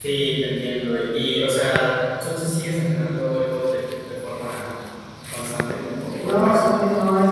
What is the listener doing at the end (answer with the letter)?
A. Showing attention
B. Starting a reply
B